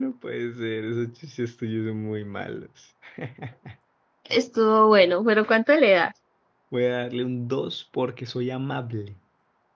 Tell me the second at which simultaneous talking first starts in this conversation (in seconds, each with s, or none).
none